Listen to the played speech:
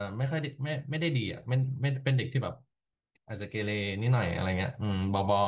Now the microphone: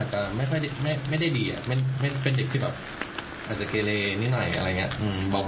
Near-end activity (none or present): none